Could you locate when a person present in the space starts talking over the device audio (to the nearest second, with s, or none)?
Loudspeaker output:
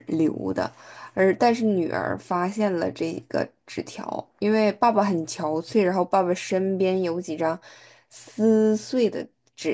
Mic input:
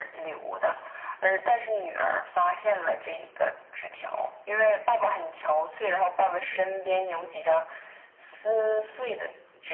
none